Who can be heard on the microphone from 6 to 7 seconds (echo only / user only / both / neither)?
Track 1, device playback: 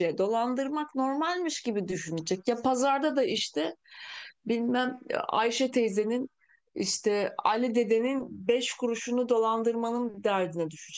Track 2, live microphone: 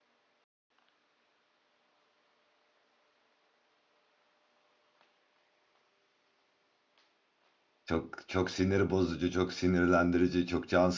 neither